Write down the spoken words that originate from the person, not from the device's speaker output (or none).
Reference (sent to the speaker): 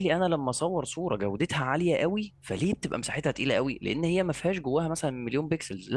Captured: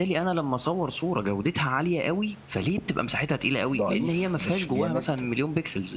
ضعيف مش جامد